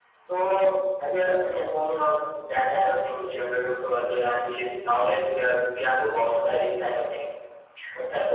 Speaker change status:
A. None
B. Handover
B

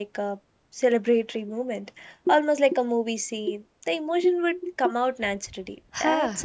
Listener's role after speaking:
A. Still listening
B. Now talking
B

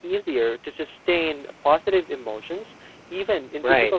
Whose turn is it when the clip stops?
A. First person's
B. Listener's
B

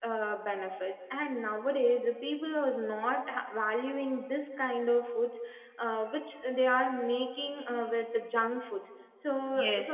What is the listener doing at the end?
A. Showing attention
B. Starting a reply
B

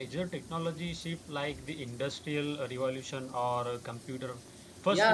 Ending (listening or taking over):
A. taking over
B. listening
A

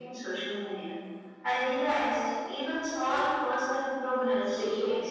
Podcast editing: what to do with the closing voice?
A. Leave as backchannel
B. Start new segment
B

